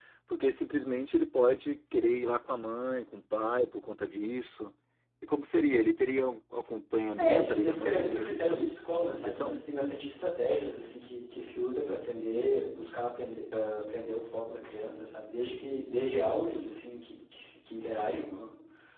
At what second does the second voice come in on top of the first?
7.2 s

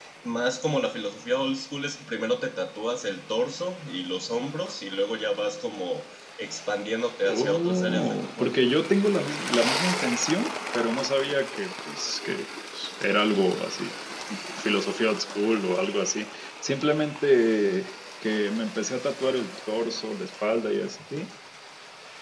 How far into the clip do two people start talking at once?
7.2 s

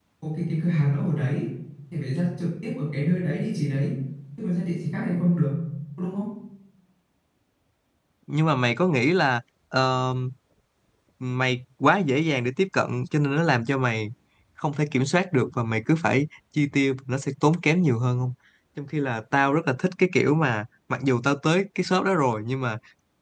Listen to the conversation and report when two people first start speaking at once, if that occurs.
none

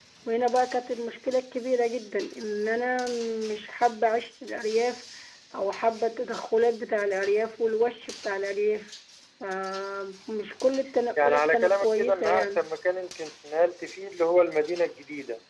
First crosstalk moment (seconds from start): 11.2 s

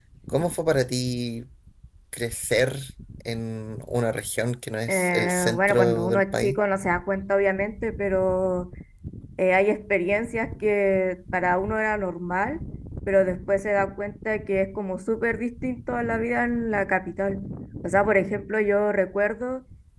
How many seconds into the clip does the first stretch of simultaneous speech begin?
4.9 s

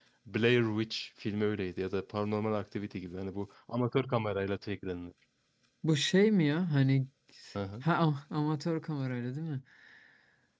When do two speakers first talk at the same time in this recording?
none

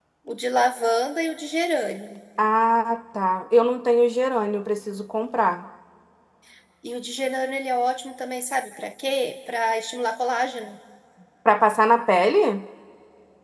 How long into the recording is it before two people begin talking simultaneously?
none

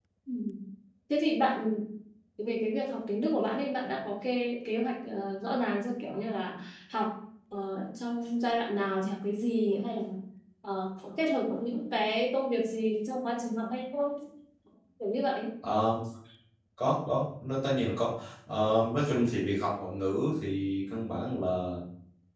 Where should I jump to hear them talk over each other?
none

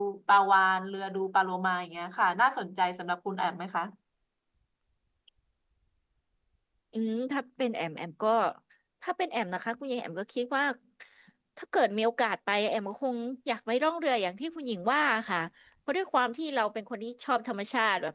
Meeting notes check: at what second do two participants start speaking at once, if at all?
none

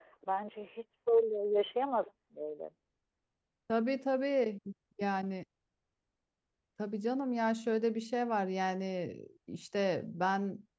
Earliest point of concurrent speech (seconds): none

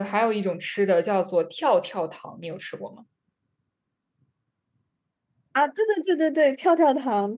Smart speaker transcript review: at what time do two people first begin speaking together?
none

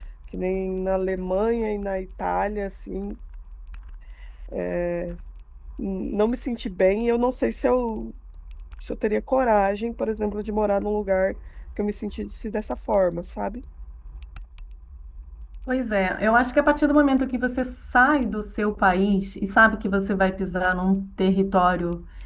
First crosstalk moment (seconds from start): none

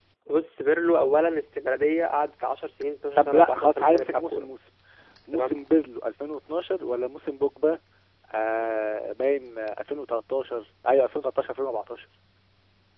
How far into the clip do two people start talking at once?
3.2 s

